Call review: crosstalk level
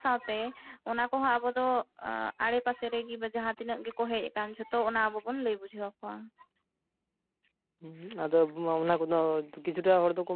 none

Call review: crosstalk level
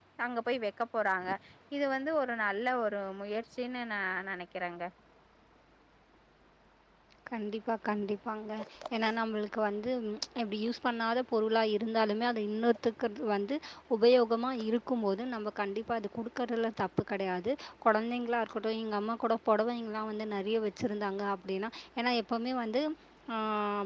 none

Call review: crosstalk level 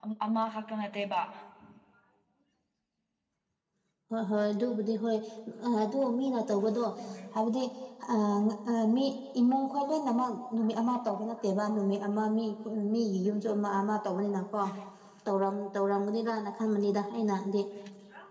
none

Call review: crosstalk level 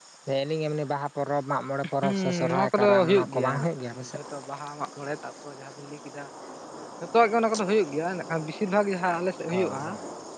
present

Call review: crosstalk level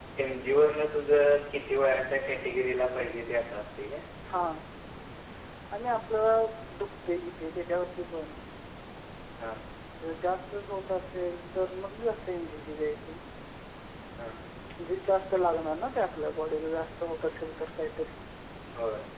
none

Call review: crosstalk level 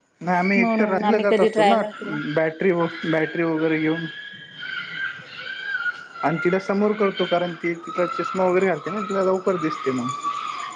present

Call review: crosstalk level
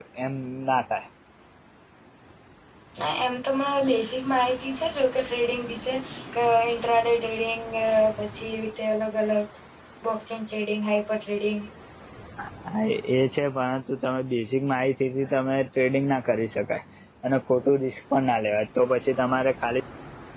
none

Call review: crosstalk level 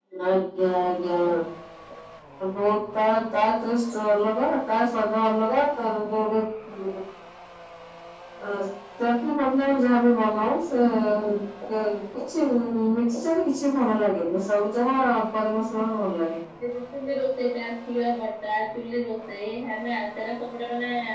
none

